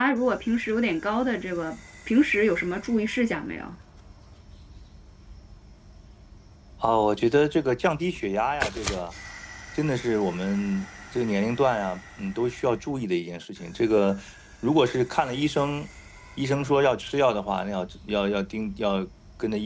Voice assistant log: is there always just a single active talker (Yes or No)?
Yes